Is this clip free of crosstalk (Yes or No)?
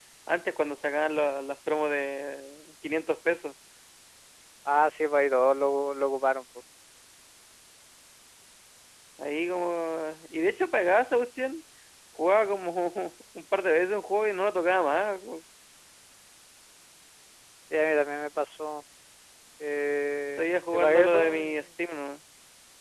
No